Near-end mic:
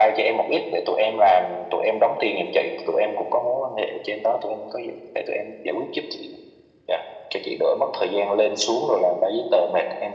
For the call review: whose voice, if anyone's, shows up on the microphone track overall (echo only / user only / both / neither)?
echo only